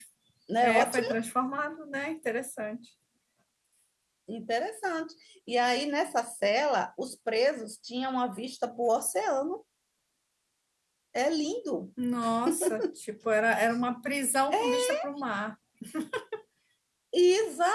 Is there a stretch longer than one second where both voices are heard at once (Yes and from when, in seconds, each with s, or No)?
No